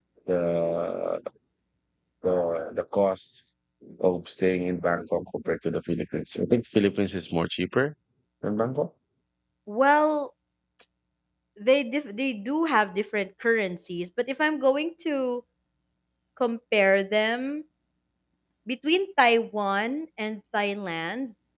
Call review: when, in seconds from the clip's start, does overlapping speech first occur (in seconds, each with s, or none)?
none